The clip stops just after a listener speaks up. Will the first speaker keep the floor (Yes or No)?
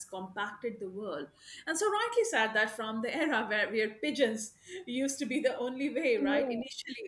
Yes